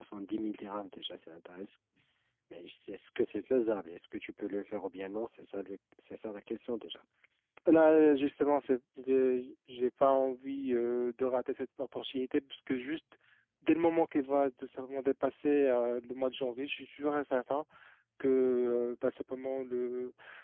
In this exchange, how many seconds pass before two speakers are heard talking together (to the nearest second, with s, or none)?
none